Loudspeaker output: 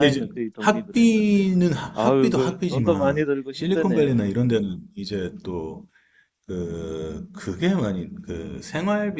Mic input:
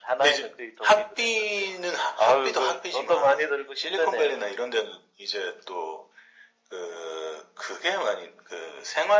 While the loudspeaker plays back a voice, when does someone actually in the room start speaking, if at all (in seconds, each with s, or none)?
none